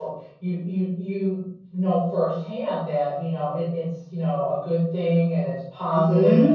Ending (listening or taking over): taking over